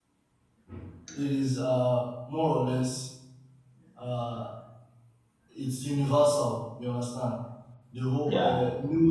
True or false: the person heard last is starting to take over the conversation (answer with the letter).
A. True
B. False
B